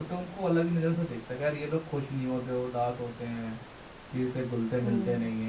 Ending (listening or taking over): listening